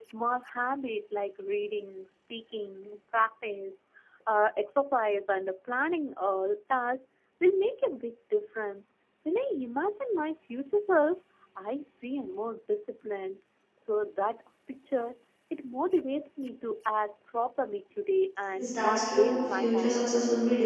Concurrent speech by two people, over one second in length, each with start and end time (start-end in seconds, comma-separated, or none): 18.6-20.1